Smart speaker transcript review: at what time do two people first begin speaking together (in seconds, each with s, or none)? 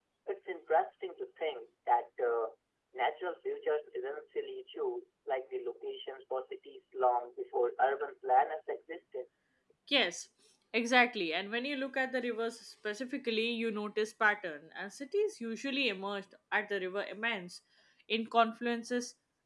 none